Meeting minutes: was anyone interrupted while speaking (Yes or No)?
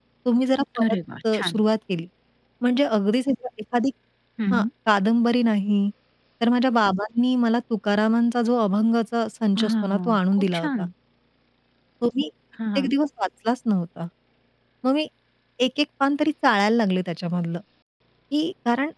Yes